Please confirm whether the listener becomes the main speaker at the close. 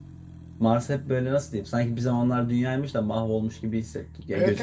Yes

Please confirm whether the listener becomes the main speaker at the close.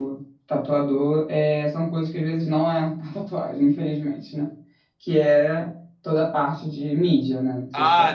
Yes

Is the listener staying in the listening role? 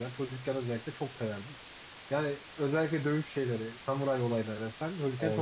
Yes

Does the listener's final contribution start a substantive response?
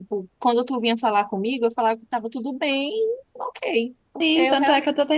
Yes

